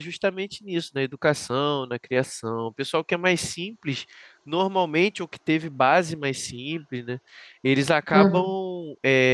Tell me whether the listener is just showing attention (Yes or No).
Yes